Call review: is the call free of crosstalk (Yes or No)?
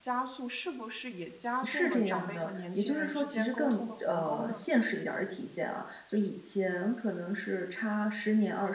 No